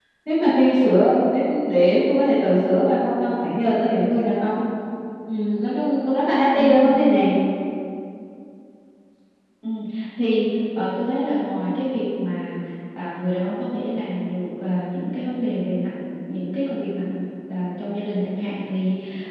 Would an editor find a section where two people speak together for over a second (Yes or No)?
No